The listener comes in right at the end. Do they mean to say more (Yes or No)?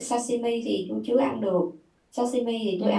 No